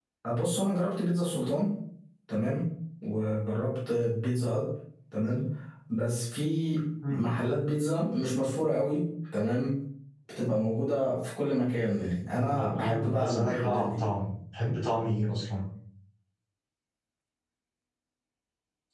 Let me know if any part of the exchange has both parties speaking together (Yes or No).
Yes